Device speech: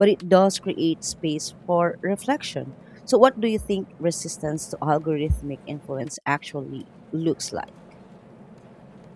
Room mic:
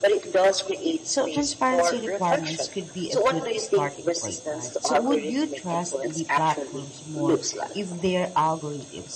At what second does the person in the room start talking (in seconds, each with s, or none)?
1.1 s